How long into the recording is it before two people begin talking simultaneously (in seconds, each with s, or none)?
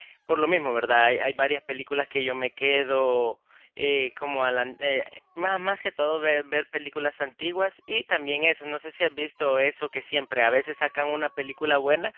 none